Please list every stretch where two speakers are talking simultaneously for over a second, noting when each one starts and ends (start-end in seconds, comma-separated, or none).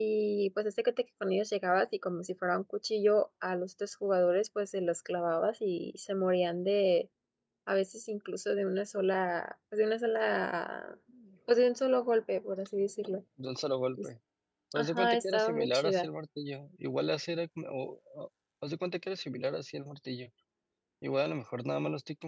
14.7-16.1